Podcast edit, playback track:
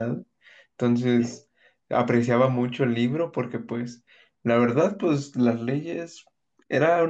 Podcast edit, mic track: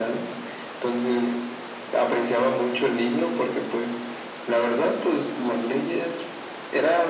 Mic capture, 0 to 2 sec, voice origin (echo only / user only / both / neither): echo only